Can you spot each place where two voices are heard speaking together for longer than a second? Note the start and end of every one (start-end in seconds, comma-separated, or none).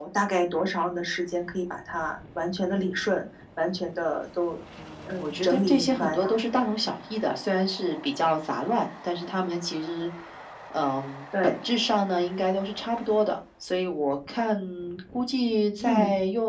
5.1-6.4